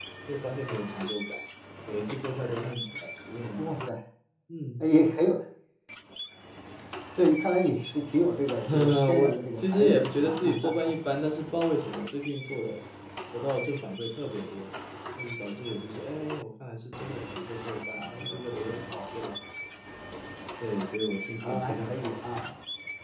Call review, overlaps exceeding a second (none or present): present